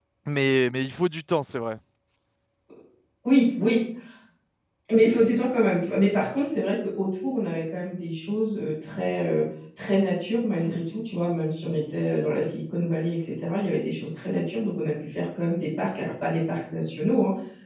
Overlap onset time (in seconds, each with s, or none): none